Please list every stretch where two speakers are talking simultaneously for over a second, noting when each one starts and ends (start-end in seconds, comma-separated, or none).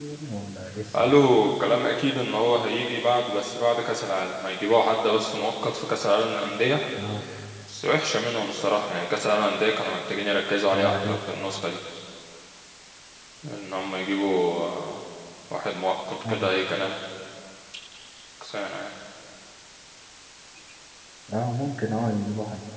none